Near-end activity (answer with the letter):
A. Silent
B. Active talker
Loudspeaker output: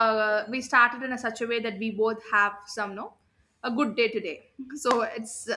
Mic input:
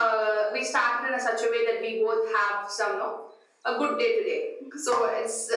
A